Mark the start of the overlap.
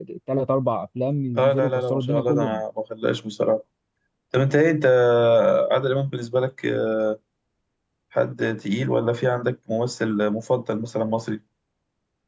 1.4 s

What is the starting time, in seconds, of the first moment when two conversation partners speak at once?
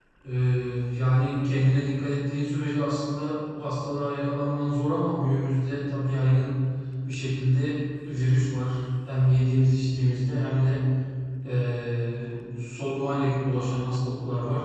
none

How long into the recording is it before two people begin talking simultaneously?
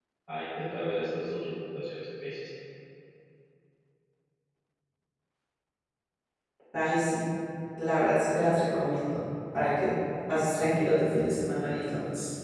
none

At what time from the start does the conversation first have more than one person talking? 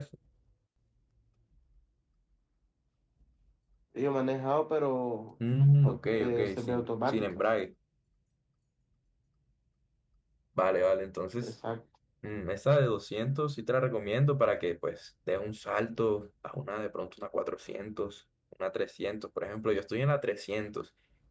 5.8 s

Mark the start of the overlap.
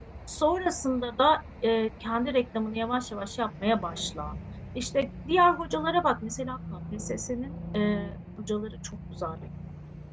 none

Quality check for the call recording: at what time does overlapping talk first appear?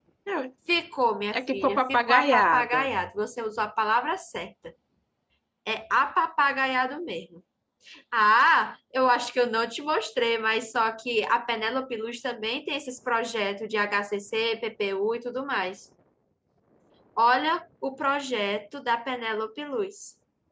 1.4 s

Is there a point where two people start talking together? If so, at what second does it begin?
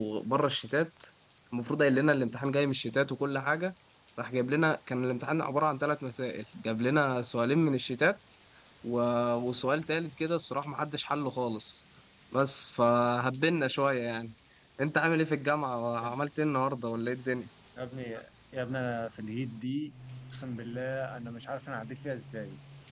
none

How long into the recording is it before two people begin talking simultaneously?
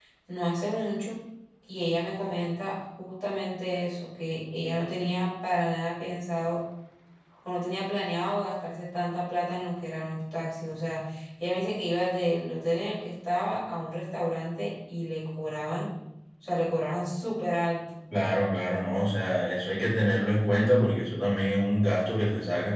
none

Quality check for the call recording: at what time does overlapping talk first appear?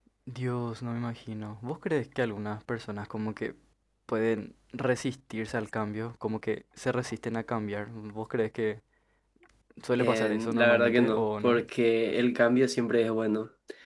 10.0 s

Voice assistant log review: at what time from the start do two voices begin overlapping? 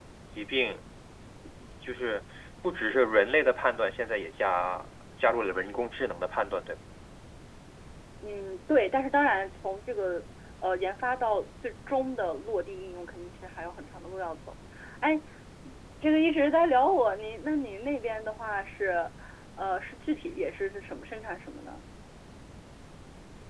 none

